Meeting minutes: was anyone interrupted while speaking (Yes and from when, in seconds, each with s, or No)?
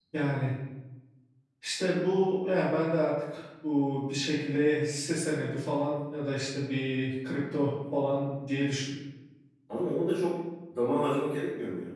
No